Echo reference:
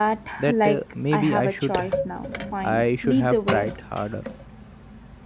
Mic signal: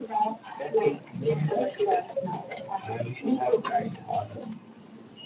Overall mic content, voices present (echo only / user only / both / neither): echo only